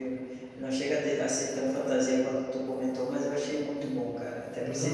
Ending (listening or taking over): listening